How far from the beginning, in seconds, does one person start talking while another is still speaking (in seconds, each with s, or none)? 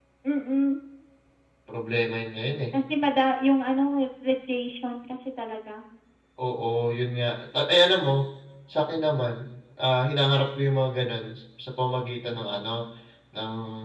none